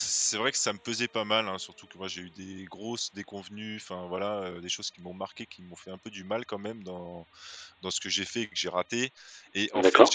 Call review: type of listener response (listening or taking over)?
listening